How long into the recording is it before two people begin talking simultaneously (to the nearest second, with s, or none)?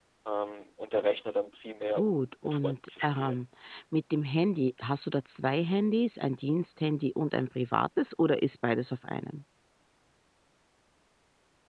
2 s